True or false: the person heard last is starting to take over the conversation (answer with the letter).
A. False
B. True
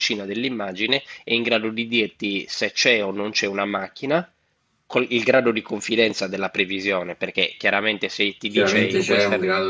B